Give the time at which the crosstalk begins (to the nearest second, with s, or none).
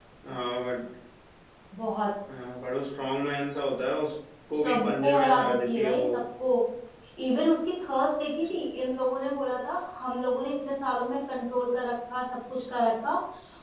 5 s